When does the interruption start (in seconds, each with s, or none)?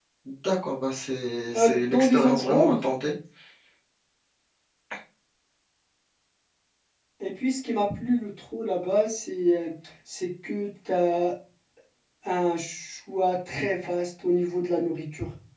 1.5 s